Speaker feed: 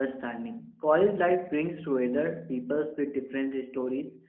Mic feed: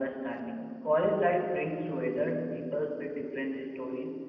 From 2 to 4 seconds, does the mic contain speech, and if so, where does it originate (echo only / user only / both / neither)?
echo only